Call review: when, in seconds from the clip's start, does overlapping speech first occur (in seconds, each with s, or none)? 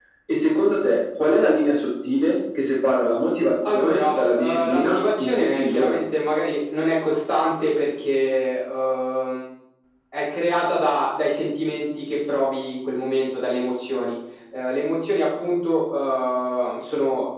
3.6 s